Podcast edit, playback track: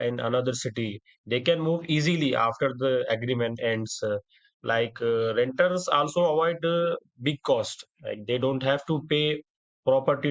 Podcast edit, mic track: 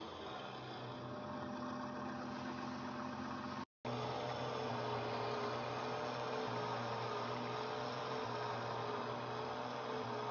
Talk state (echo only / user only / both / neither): neither